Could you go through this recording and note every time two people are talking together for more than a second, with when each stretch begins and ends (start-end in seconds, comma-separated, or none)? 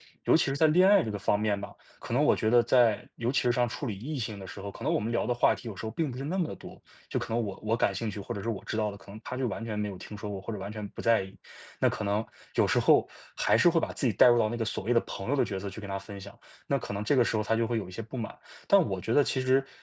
none